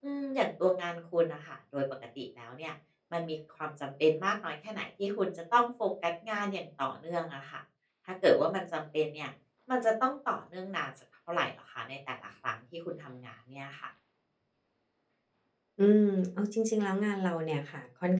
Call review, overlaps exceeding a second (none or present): none